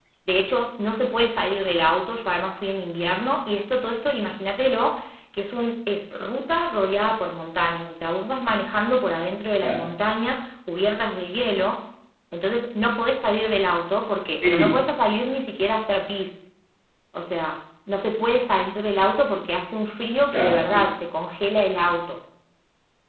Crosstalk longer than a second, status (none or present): none